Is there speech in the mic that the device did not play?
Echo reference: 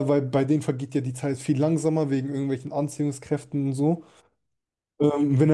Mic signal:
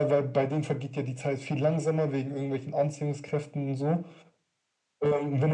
No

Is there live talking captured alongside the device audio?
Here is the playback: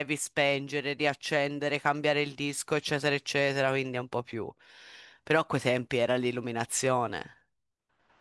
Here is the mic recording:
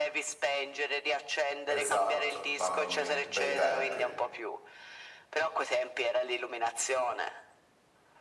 Yes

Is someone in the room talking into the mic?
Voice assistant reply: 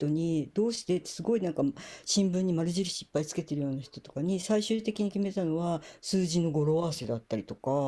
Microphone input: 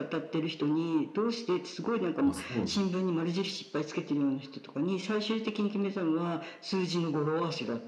Yes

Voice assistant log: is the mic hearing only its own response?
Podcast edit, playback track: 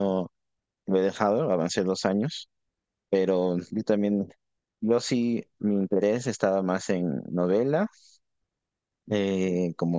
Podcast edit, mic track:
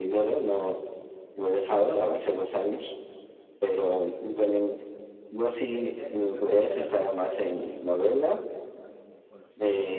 No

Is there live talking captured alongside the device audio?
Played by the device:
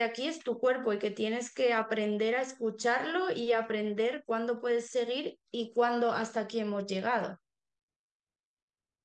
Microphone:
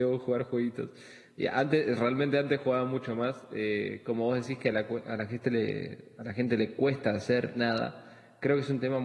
Yes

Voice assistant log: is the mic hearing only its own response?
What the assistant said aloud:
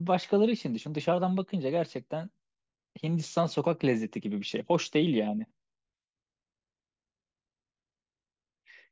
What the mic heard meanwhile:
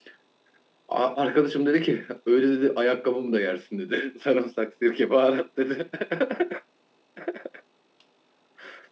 No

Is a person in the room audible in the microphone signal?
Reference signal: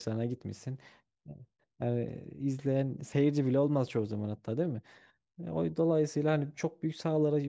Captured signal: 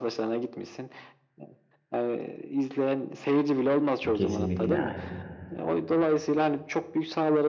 Yes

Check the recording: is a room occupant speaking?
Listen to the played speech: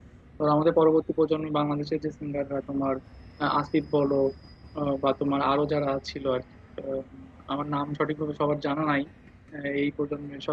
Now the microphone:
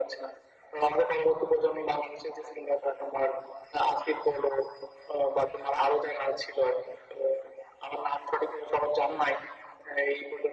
No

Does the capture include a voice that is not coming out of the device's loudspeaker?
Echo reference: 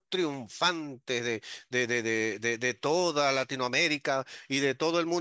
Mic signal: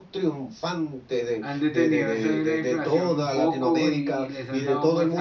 Yes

